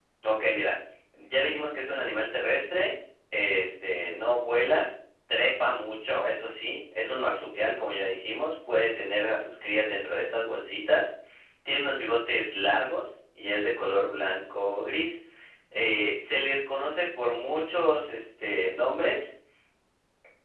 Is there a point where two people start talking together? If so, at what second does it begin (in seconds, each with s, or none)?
none